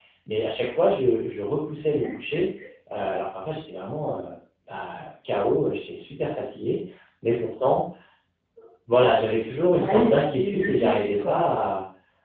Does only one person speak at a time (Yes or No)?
No